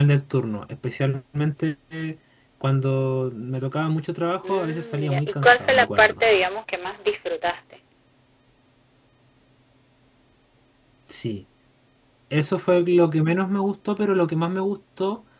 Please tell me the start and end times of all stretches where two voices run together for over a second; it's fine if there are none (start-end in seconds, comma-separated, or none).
4.4-6.2